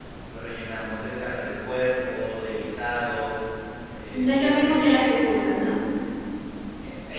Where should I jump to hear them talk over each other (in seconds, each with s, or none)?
4.1 s